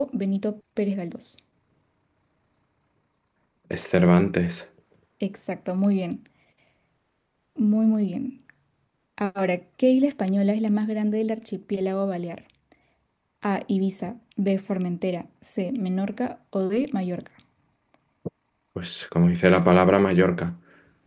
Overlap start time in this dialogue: none

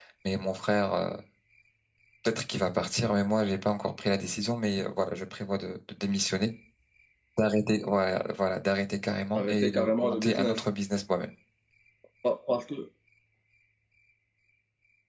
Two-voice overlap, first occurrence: 9.3 s

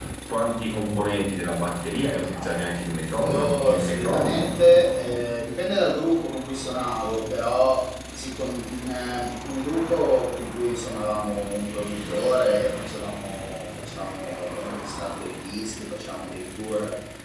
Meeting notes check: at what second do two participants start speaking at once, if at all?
3.2 s

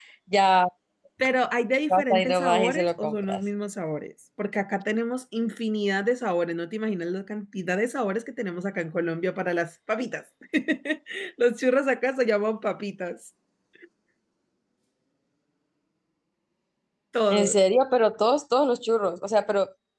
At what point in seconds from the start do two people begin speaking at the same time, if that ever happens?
1.9 s

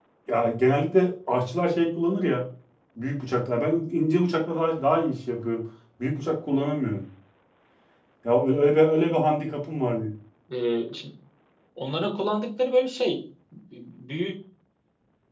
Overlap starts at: none

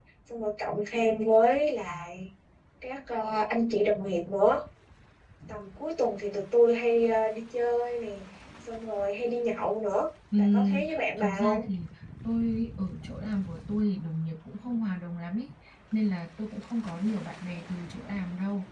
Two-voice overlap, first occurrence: 10.3 s

